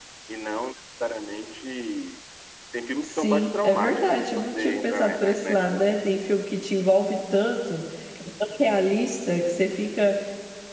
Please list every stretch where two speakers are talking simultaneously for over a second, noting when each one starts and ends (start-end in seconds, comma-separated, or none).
3.0-6.0